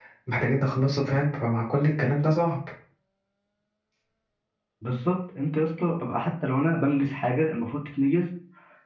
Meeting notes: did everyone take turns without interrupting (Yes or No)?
Yes